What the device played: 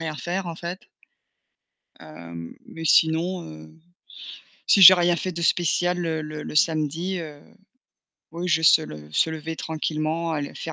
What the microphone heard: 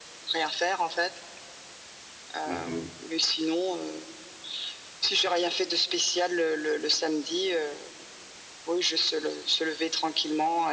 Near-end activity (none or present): present